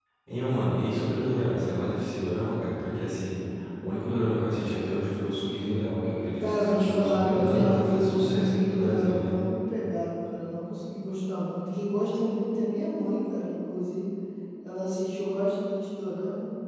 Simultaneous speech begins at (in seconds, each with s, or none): 6.4 s